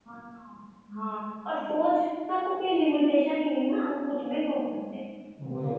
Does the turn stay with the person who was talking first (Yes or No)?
Yes